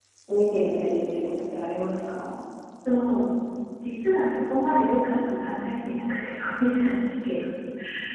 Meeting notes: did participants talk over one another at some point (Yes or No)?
No